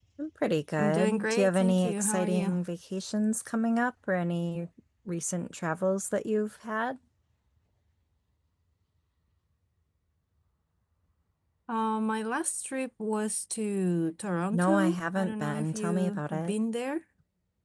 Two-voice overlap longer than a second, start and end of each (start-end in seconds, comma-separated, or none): 0.8-2.6, 14.5-16.5